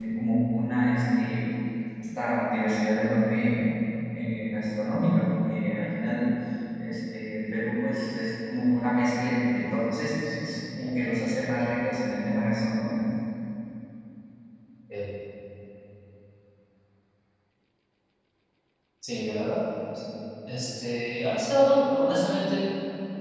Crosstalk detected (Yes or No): No